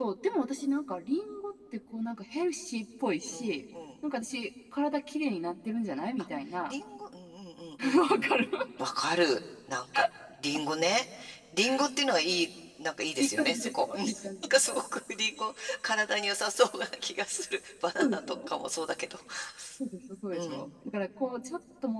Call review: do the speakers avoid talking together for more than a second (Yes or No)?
No